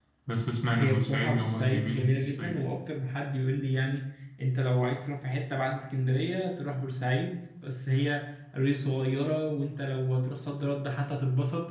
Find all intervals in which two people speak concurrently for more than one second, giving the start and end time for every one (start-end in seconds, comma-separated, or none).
0.7-2.5